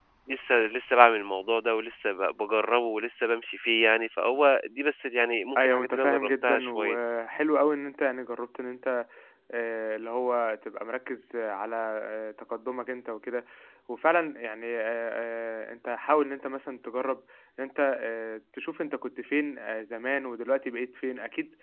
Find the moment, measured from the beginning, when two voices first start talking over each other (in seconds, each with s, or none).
5.6 s